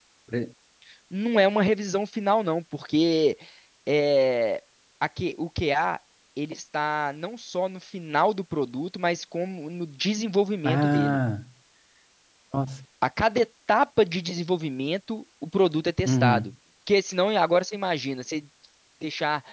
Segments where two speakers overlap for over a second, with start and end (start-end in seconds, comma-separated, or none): none